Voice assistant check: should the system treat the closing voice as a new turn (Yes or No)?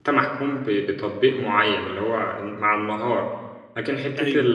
No